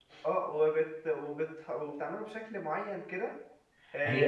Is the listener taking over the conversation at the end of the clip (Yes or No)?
Yes